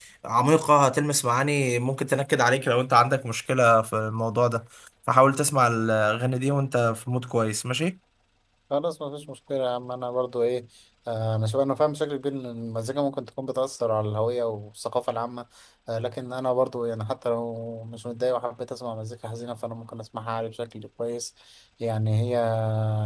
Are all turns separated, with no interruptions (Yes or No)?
Yes